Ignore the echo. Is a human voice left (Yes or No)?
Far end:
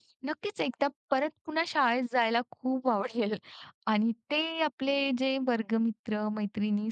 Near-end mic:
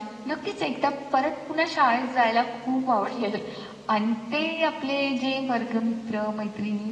No